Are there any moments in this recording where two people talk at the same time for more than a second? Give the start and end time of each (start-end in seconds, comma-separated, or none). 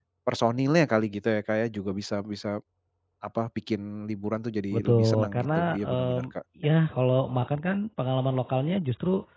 4.7-6.3